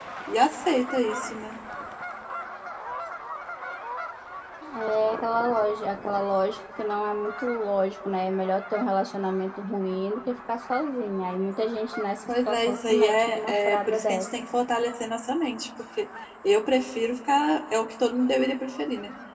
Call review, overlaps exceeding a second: present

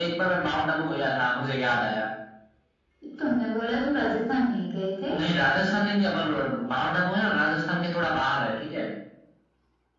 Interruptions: none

